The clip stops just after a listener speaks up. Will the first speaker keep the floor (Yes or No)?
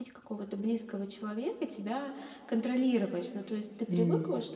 Yes